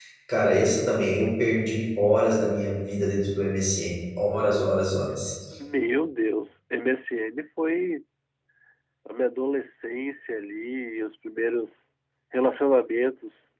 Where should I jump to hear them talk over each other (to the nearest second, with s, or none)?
none